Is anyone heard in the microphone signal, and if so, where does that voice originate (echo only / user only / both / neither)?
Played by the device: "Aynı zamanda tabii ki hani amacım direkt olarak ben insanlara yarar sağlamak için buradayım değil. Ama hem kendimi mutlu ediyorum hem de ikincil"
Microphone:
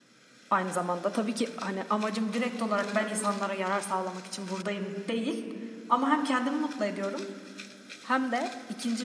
echo only